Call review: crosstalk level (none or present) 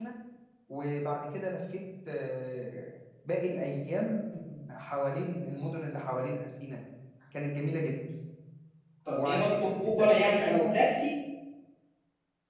present